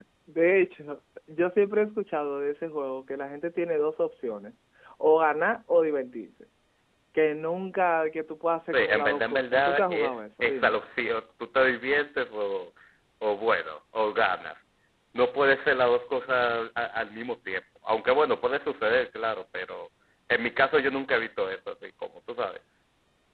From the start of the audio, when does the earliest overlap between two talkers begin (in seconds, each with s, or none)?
8.7 s